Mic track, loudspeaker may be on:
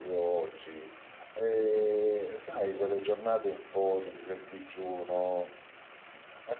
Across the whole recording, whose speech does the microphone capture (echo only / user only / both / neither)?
echo only